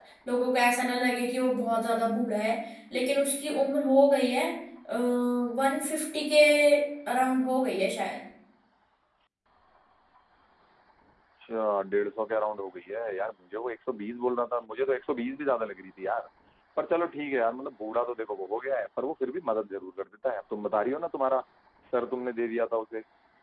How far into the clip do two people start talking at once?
none

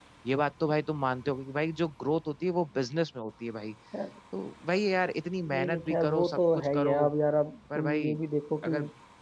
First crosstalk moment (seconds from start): 5.5 s

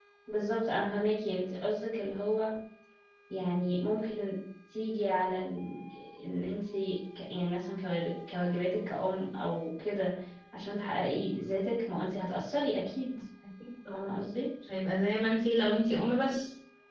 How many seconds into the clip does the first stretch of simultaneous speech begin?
none

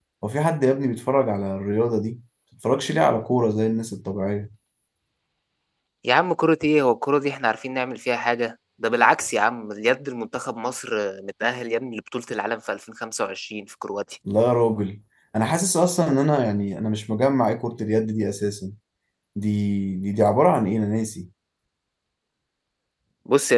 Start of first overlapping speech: none

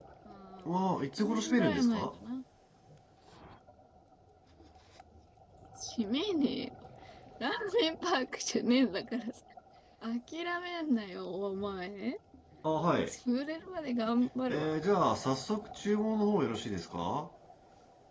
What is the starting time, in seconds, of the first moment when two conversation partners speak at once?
0.7 s

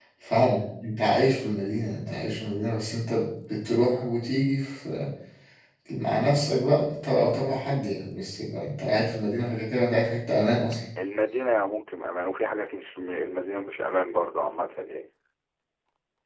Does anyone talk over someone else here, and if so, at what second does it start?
none

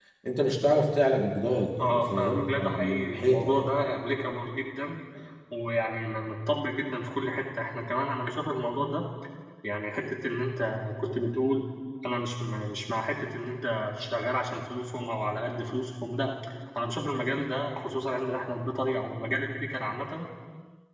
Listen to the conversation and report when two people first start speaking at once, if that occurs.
1.8 s

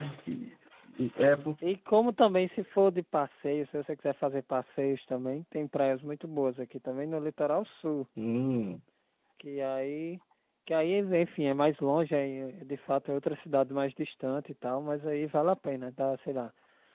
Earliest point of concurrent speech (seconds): none

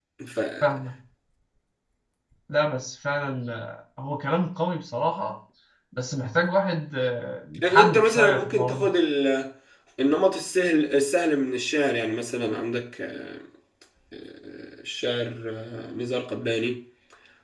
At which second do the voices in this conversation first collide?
7.6 s

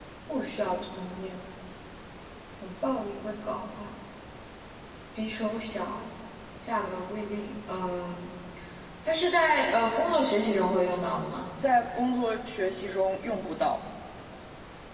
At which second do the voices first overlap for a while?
none

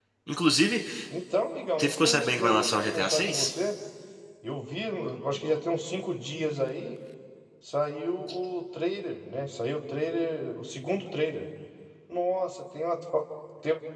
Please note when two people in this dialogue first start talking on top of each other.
1.8 s

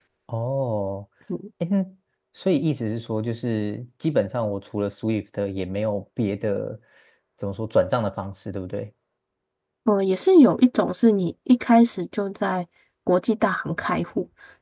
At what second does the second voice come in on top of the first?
none

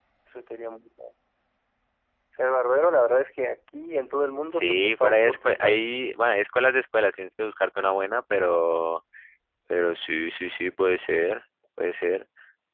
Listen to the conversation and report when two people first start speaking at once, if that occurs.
4.5 s

